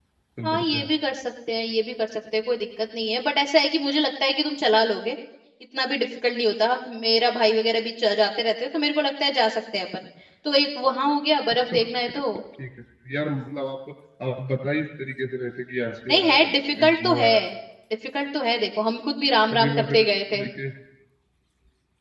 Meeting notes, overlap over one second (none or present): present